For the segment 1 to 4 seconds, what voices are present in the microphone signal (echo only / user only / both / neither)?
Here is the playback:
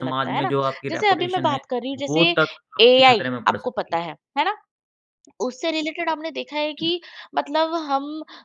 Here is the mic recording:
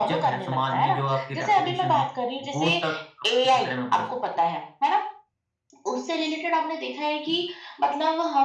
echo only